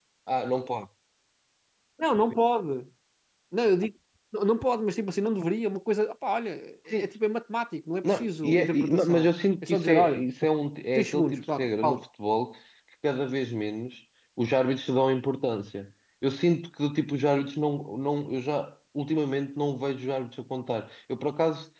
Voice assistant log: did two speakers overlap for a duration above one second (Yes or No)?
Yes